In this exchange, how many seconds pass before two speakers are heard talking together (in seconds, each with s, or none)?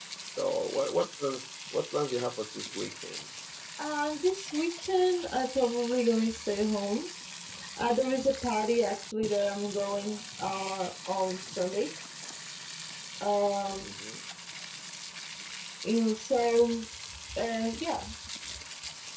none